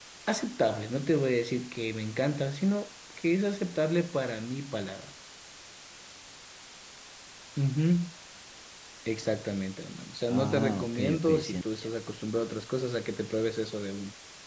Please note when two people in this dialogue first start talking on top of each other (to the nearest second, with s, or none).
10 s